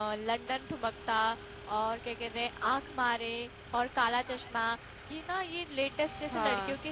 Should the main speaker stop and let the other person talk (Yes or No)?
No